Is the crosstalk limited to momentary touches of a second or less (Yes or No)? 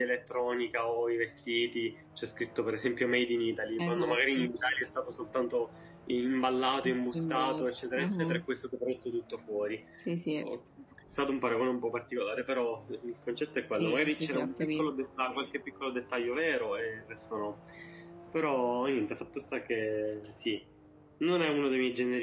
No